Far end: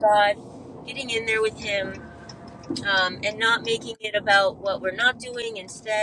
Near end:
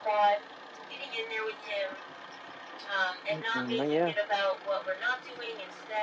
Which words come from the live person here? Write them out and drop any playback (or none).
Mm-mm, oh, yeah.